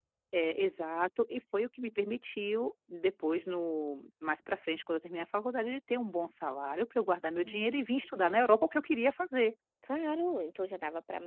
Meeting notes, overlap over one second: none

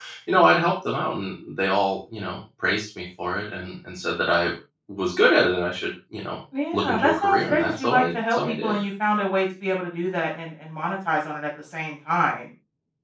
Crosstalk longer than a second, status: present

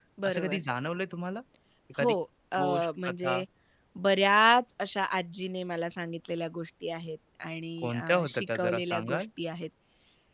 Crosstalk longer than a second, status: present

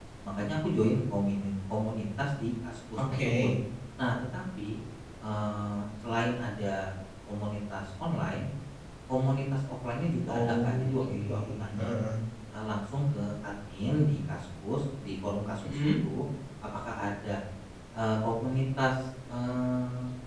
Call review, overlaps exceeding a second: present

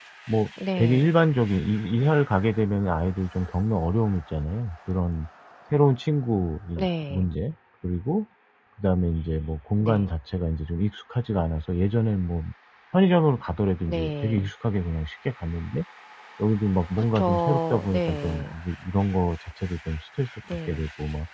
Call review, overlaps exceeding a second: present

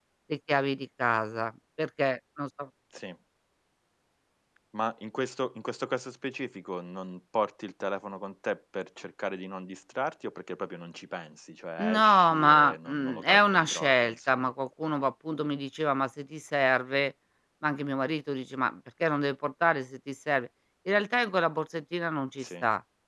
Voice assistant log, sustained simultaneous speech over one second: present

